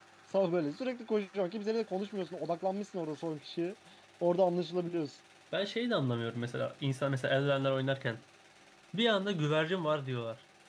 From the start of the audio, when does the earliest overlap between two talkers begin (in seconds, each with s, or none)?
none